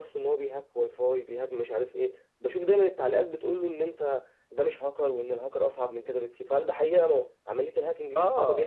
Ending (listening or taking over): taking over